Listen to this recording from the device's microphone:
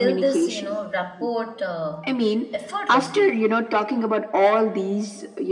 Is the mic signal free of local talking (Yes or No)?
No